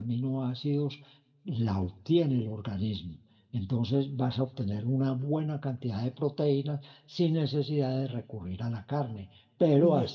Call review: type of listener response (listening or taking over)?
listening